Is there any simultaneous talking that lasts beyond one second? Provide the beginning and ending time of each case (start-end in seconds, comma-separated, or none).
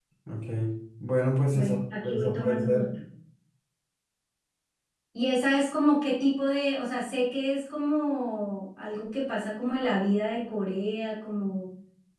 1.5-2.8